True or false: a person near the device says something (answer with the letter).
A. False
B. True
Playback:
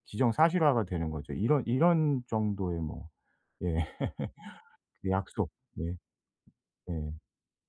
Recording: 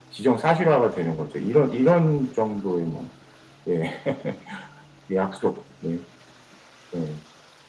A